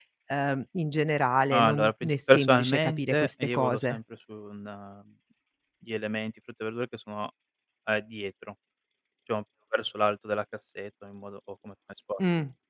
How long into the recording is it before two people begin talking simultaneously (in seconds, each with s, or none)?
1.5 s